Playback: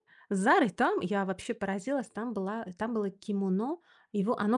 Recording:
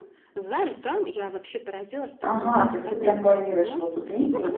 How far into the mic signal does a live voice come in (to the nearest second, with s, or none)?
2 s